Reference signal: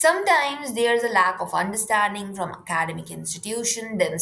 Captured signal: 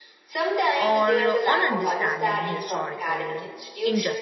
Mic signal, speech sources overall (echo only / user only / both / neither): both